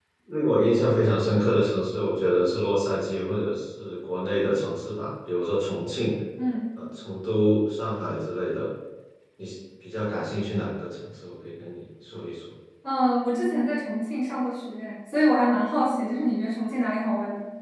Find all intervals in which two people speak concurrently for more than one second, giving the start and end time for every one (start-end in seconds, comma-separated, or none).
none